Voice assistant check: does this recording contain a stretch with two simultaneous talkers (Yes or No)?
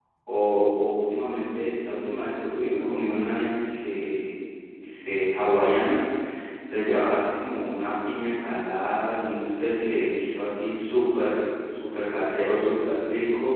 No